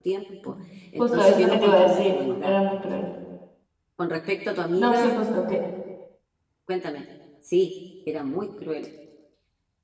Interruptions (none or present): present